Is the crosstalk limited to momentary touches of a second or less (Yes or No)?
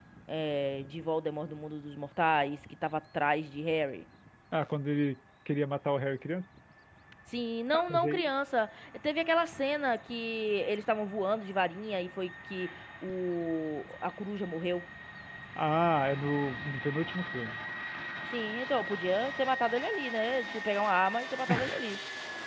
Yes